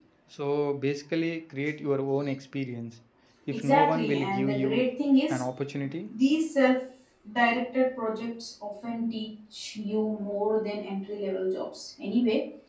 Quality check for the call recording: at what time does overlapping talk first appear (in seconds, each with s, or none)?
3.5 s